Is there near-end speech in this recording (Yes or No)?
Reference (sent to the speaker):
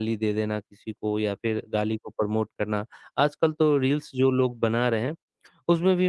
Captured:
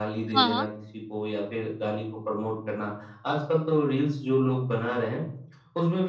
Yes